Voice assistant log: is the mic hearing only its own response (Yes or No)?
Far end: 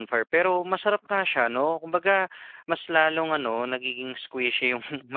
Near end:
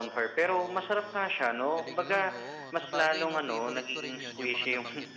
No